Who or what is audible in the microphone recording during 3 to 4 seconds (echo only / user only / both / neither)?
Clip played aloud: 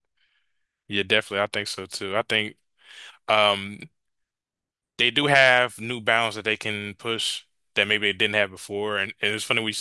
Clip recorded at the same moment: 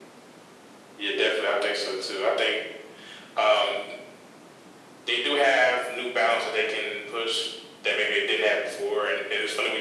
echo only